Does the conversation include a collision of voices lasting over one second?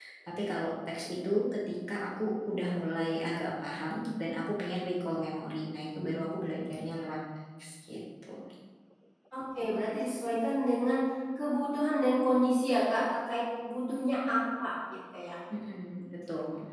No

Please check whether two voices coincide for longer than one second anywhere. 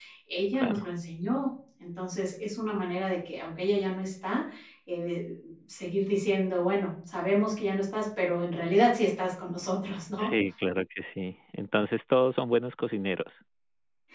No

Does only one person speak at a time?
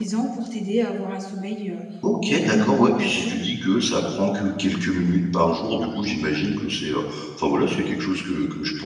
No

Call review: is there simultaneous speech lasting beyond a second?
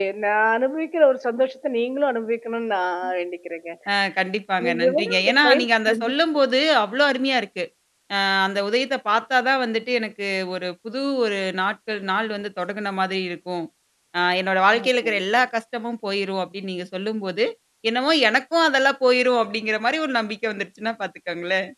Yes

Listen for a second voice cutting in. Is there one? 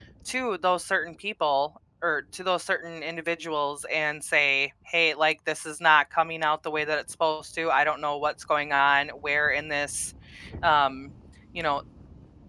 No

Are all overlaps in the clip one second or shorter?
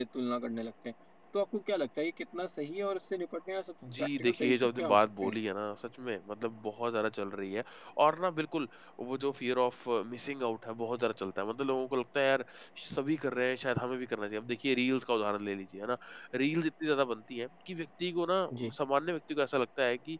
No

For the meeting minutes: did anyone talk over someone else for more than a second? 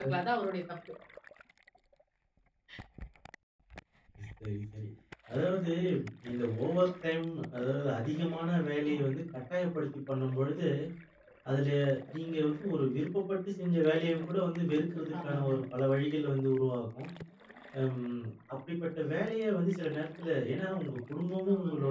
No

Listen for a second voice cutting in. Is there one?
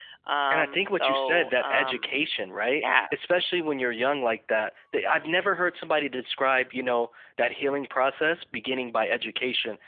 Yes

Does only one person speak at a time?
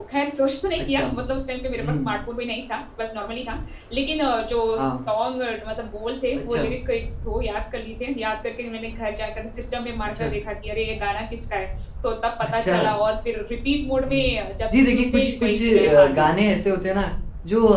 No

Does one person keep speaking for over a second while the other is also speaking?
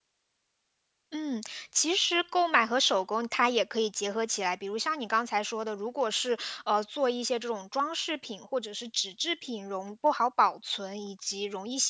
No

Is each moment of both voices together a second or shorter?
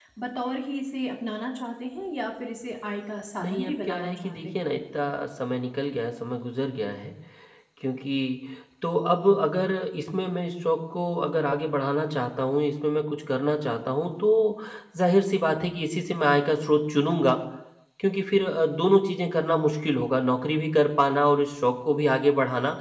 No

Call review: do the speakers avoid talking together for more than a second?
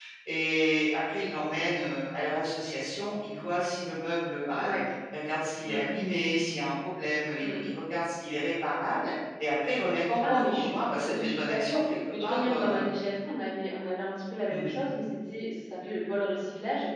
No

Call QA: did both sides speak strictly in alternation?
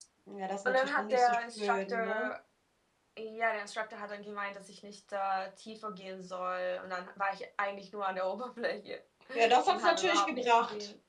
No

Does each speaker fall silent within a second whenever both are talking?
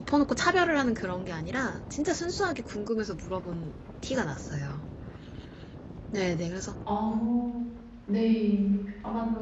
Yes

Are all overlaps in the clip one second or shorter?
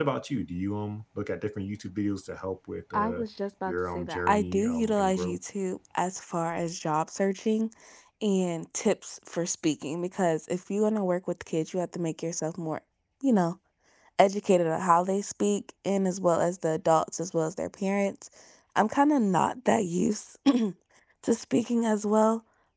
No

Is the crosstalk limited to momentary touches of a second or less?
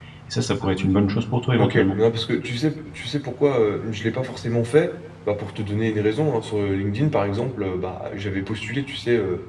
Yes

